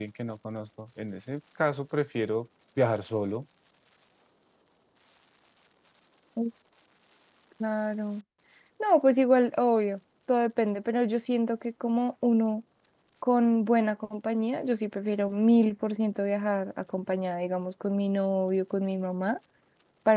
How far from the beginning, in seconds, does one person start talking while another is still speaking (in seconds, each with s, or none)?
none